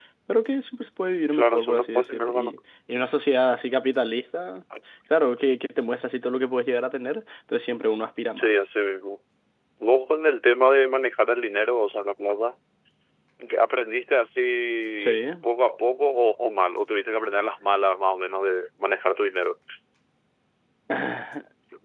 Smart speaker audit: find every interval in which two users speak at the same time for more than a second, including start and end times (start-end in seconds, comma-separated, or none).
1.3-2.5